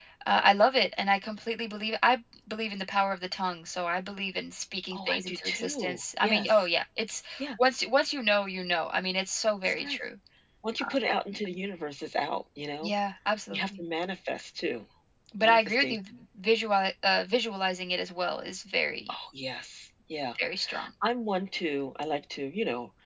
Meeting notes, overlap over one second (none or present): present